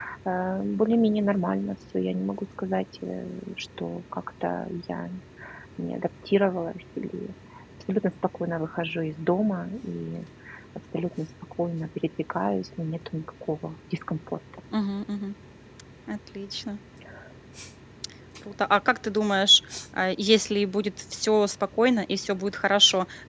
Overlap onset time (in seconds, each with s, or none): none